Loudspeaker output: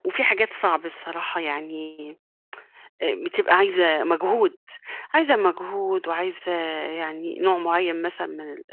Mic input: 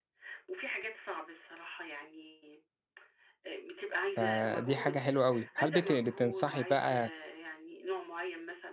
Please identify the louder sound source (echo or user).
user